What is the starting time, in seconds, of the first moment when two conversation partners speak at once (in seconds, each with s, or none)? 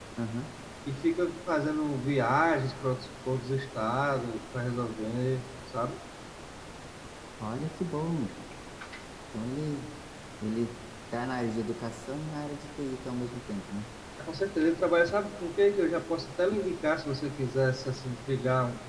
none